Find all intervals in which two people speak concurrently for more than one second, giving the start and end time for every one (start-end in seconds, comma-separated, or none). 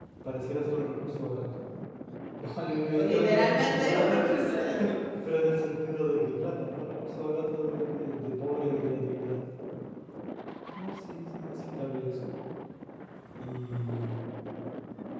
2.9-4.3